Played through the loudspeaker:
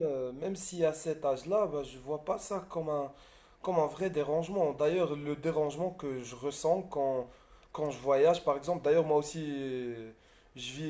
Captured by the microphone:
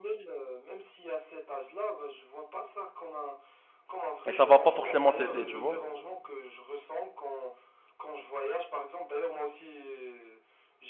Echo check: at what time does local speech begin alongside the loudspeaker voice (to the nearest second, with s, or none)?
4 s